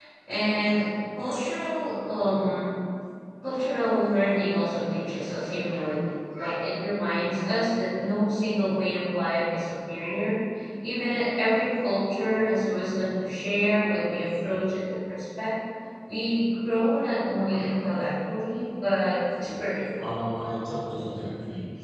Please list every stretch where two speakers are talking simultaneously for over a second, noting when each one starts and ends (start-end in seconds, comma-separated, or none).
none